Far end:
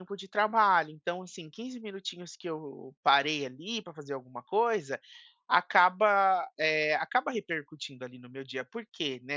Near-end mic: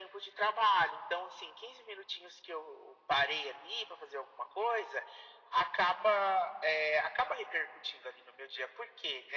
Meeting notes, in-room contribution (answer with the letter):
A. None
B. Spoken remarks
A